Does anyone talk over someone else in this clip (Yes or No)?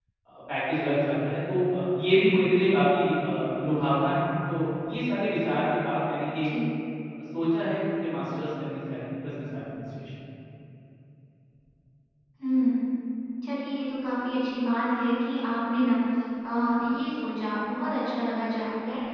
No